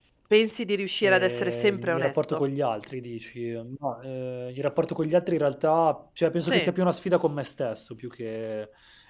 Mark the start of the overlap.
1.0 s

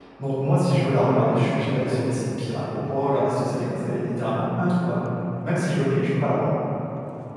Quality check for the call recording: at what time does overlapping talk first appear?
none

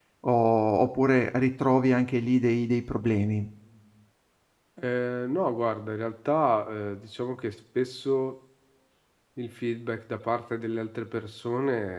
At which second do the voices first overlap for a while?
none

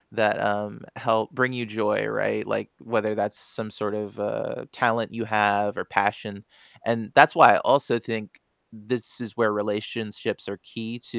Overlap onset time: none

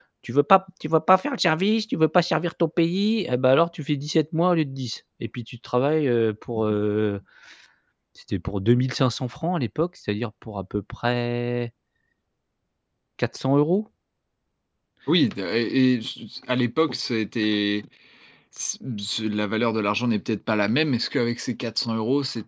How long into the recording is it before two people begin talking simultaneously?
none

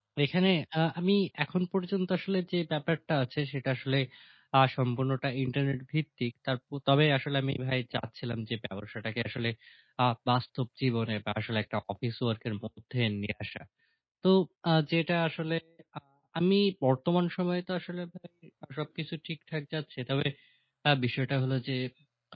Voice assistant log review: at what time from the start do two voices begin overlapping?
none

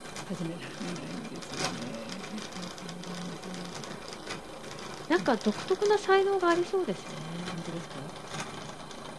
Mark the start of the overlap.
none

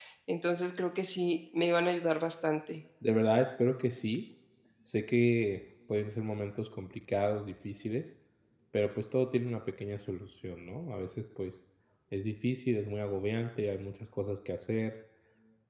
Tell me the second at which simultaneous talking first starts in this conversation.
none

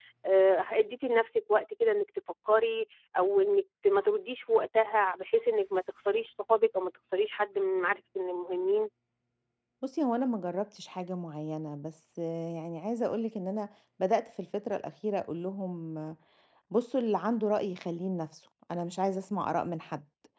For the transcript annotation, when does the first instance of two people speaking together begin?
none

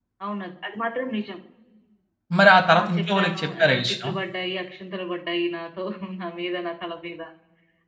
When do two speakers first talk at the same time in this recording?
2.7 s

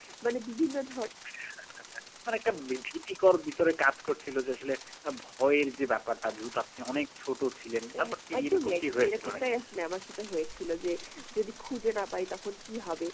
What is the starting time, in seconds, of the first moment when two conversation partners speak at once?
7.9 s

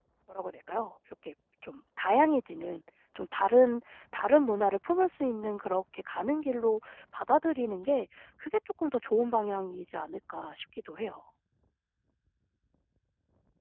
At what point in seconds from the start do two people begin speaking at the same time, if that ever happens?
none

